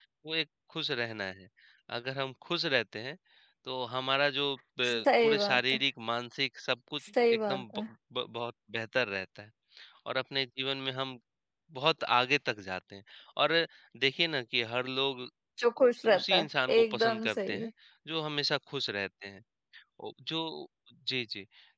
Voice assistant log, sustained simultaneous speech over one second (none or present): present